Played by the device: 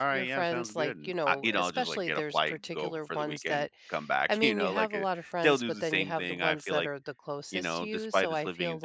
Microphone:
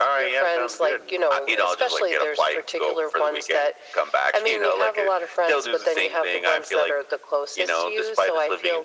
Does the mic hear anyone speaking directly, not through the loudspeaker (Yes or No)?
No